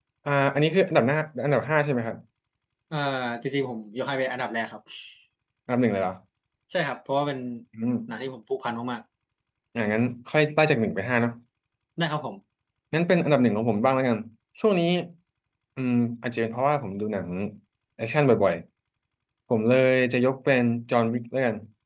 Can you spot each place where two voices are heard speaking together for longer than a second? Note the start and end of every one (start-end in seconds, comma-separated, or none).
none